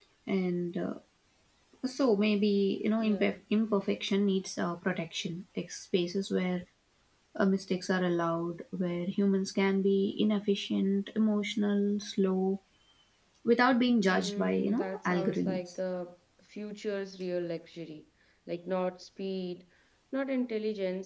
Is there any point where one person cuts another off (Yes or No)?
Yes